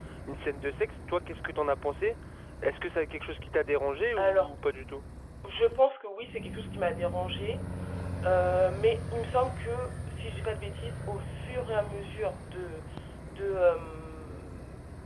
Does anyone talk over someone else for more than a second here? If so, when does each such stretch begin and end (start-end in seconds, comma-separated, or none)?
none